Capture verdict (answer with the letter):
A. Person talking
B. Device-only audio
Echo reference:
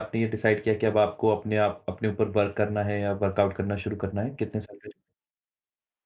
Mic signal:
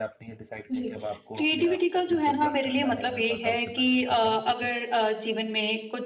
A